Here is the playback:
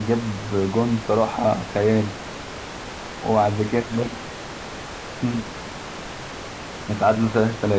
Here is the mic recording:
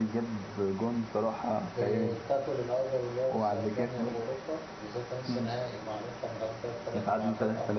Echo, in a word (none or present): present